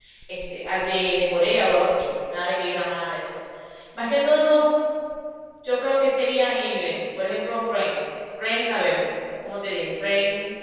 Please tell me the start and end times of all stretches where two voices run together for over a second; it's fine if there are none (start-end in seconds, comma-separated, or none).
none